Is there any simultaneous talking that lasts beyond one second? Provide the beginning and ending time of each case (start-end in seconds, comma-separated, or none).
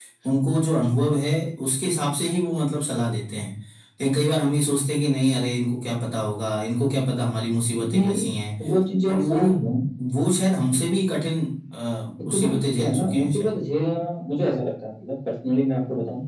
12.3-13.6